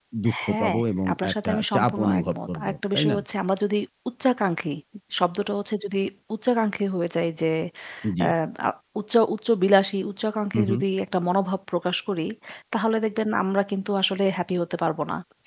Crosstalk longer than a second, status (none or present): present